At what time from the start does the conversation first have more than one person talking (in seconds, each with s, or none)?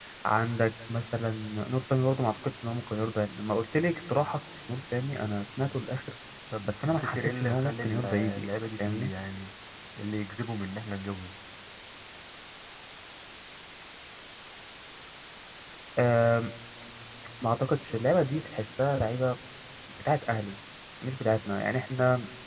6.7 s